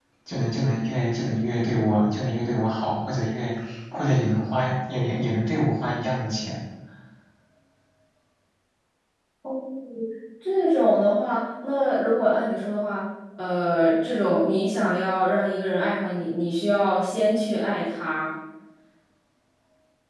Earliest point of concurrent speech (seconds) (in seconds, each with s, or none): none